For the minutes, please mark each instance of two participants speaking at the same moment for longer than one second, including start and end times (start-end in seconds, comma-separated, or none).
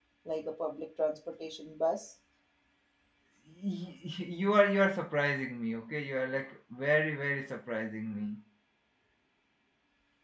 none